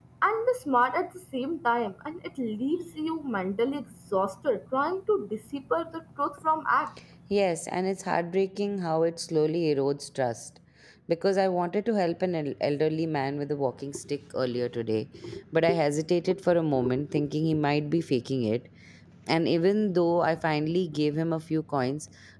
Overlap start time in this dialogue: none

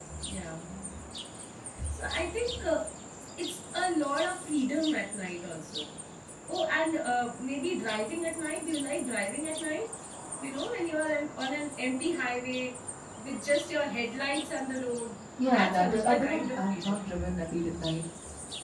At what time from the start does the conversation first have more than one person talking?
15.4 s

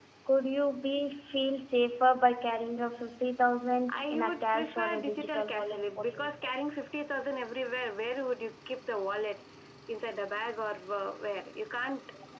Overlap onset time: 3.9 s

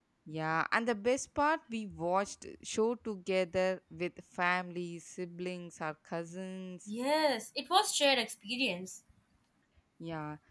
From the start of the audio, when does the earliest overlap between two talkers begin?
none

